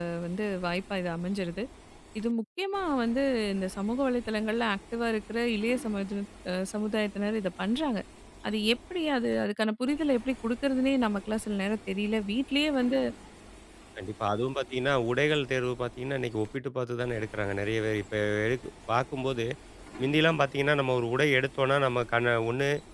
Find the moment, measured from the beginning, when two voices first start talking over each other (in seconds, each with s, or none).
none